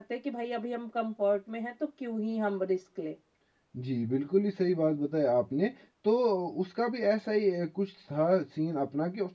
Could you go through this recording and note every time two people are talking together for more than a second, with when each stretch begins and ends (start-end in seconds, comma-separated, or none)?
none